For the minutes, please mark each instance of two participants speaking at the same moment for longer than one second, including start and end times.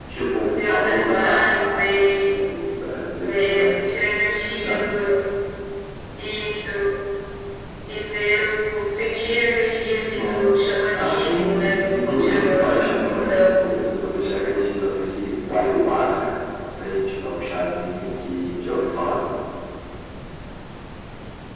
0.7-2.4, 10.1-13.8

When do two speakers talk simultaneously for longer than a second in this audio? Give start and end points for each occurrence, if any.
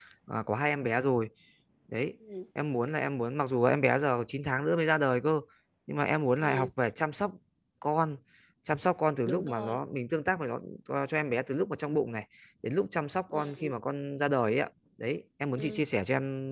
none

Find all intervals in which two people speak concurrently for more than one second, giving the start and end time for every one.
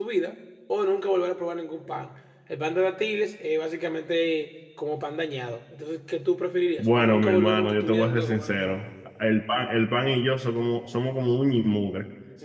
6.8-8.8

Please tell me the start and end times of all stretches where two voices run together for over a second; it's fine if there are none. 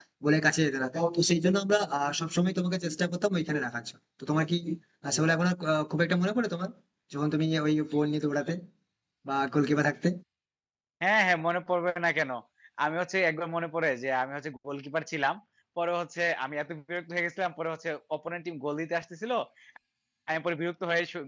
none

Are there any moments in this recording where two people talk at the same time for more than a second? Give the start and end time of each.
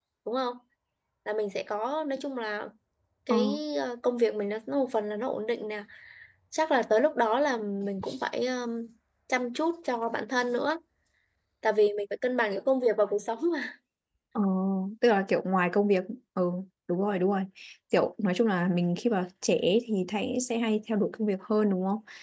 none

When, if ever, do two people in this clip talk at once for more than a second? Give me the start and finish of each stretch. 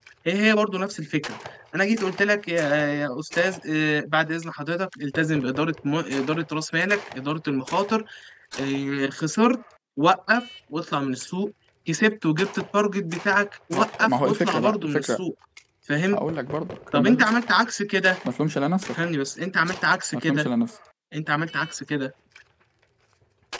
13.7-15.2

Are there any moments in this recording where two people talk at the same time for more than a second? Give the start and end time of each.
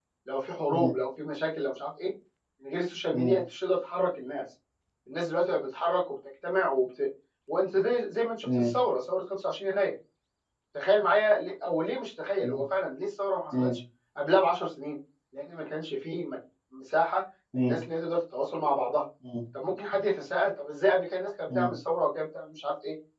none

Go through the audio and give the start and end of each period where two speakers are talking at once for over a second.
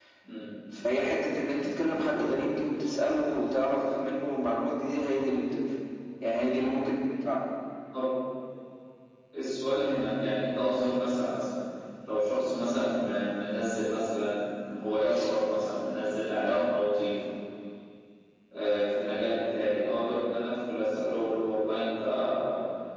none

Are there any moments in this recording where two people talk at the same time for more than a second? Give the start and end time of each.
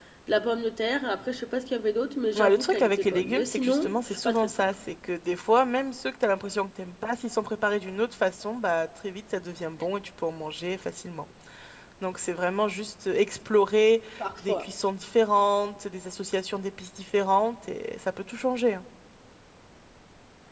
2.4-4.6

